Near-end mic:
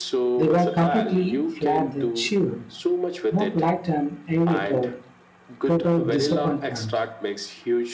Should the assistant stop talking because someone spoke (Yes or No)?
Yes